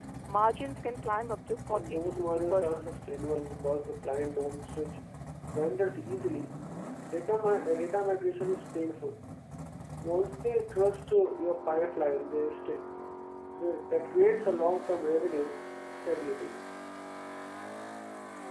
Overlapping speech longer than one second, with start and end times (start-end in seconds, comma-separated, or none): 1.7-3.0